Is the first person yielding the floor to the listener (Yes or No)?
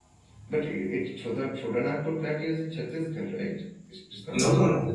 Yes